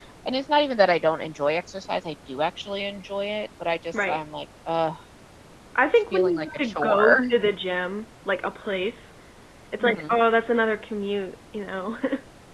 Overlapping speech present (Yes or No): Yes